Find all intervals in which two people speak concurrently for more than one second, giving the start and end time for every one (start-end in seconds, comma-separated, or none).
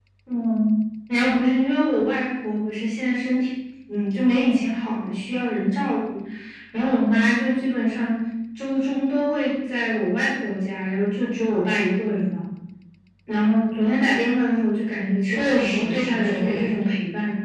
15.2-16.9